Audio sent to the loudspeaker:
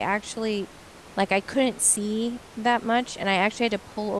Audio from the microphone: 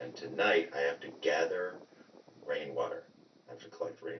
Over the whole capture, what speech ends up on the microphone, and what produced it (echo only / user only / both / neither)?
user only